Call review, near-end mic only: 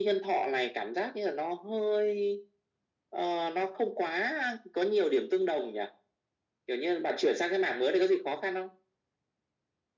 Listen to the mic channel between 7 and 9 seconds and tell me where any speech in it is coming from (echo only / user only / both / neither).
echo only